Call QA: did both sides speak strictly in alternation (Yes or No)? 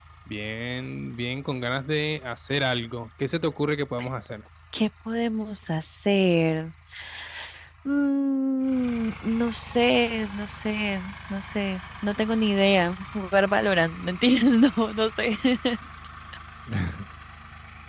Yes